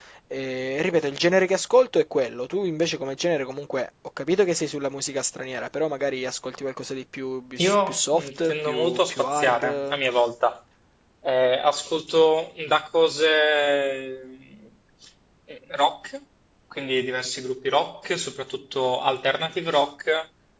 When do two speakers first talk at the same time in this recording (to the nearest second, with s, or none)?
8 s